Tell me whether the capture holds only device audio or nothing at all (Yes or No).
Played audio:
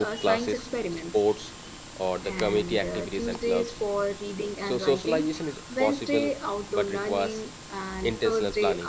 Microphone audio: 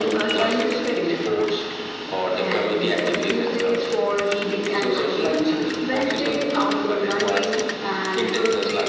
Yes